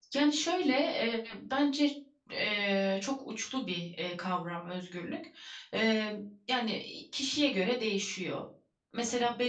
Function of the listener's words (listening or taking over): listening